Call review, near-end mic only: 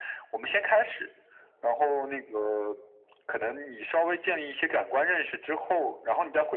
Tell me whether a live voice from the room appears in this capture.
No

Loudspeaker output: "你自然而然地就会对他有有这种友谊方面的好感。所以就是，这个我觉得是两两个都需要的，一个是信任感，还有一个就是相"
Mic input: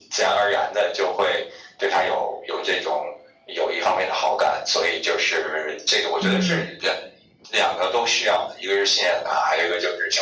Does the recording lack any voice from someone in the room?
No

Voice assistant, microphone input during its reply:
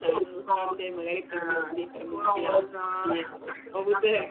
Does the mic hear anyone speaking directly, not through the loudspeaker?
Yes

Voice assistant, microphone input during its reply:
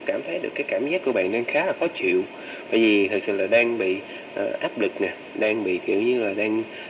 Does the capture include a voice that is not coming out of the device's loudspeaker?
No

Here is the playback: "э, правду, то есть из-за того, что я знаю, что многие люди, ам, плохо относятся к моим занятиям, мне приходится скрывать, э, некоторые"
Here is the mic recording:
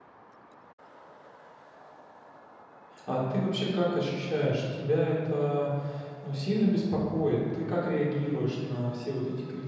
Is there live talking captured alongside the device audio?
Yes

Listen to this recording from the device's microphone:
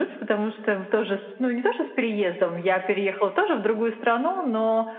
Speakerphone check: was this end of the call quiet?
Yes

